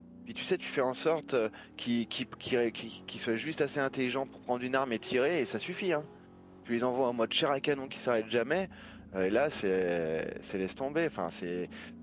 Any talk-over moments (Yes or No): No